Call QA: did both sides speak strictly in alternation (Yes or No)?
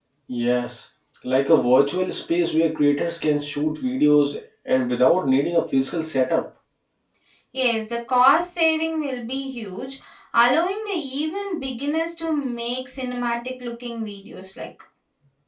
Yes